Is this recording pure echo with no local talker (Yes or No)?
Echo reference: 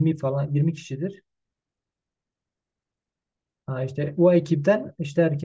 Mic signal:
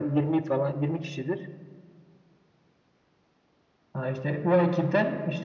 Yes